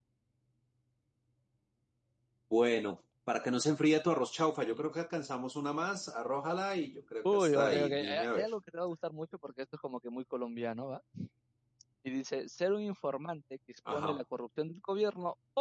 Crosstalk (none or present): present